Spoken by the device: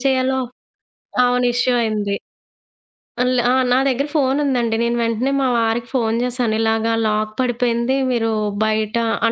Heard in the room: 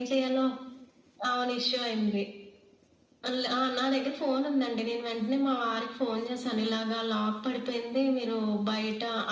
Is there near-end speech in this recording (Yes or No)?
No